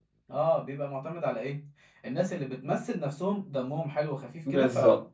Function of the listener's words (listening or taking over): taking over